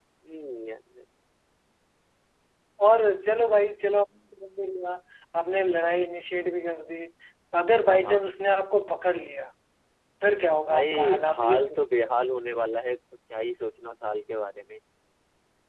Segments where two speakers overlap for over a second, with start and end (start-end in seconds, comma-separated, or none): 10.6-12.1